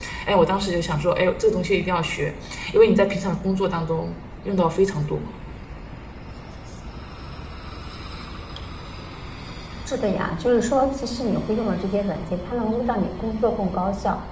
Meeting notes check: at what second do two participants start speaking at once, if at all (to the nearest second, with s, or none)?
none